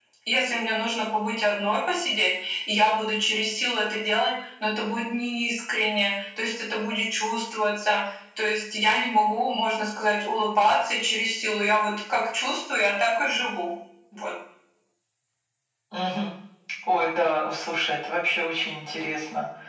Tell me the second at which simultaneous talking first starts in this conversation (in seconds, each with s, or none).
none